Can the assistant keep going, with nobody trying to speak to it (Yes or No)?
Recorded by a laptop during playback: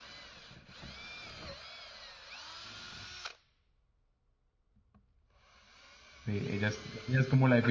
No